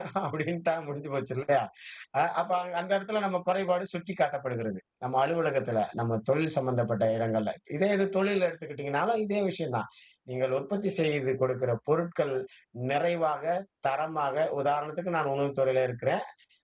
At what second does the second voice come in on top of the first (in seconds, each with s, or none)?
none